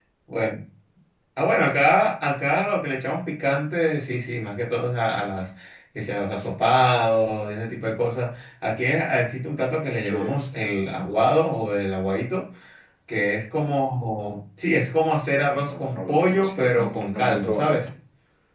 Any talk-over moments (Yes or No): Yes